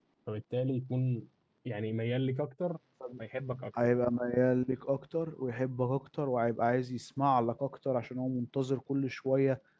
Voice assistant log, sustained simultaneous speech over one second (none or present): none